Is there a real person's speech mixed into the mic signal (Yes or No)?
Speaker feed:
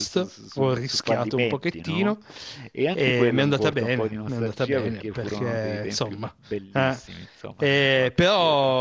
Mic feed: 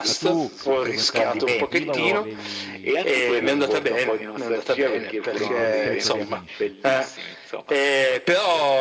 Yes